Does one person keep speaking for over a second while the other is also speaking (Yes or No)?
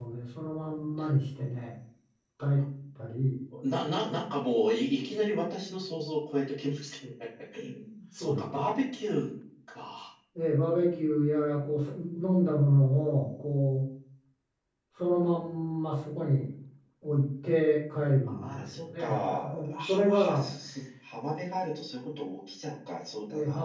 Yes